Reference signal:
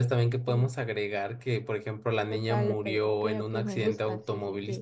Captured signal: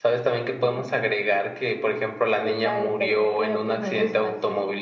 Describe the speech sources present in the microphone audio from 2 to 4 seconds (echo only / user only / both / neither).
echo only